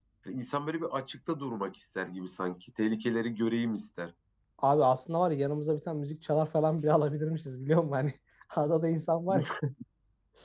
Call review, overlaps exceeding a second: none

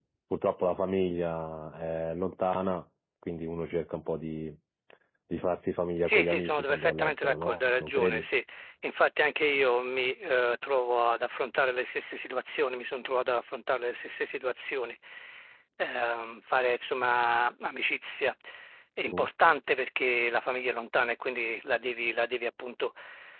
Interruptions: present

